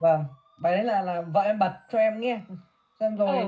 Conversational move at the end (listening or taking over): listening